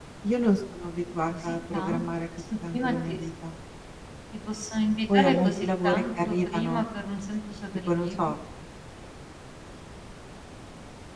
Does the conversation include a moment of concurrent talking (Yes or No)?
Yes